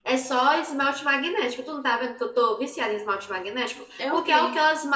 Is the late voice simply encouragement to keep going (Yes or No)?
Yes